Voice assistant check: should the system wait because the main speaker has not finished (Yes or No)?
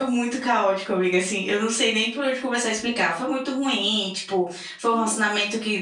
Yes